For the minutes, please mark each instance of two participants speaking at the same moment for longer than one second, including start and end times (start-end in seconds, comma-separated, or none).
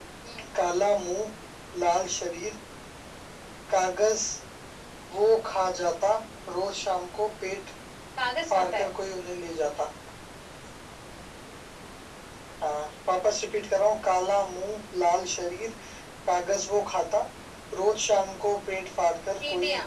none